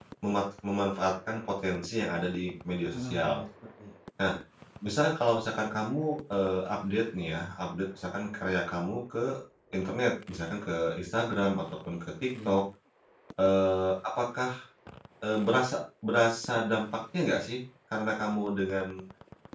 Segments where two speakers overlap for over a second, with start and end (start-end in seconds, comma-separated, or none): none